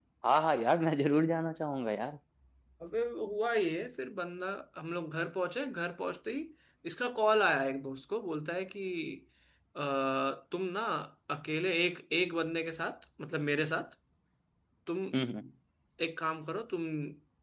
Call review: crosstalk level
none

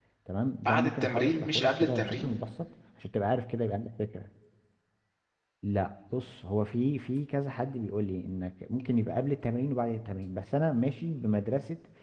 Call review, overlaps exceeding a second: present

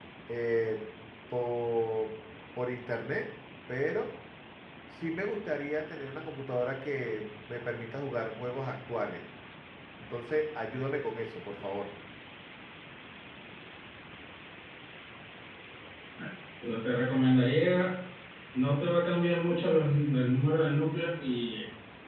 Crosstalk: none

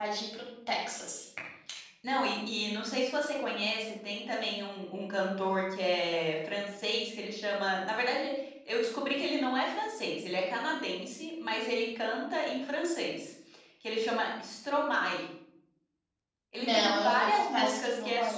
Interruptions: present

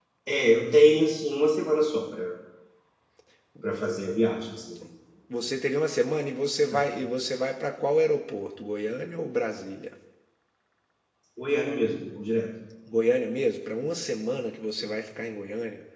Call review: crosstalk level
none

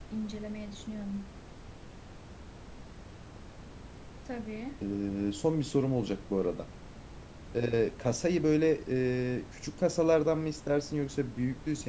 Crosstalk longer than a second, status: none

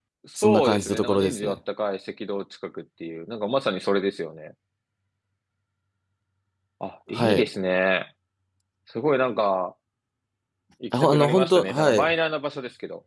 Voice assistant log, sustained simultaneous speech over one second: present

